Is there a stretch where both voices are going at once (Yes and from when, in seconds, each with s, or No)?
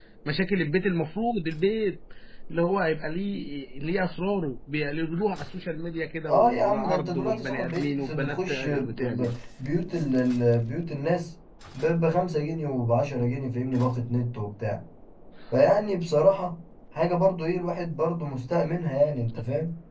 Yes, from 6.3 s